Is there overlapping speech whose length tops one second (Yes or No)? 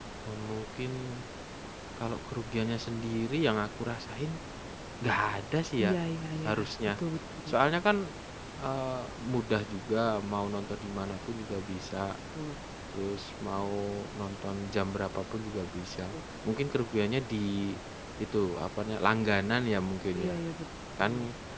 No